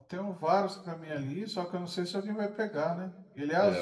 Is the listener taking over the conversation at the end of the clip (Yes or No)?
Yes